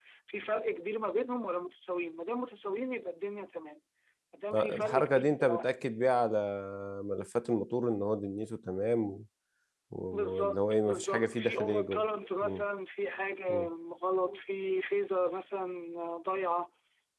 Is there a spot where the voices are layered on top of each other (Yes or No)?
Yes